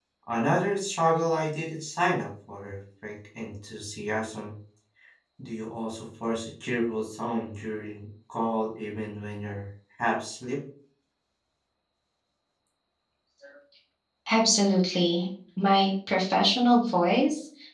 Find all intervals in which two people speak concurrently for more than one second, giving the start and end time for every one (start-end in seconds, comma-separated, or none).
none